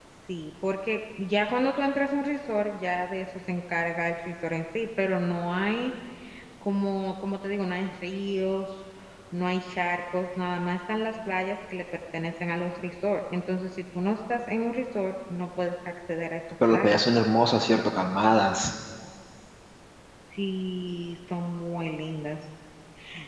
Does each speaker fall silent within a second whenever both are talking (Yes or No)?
Yes